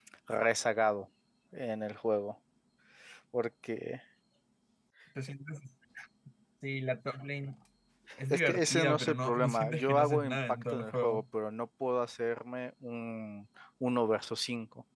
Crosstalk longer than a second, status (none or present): present